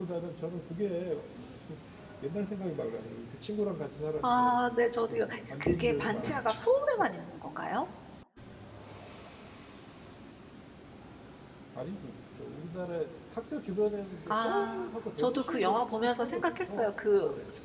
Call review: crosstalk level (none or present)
present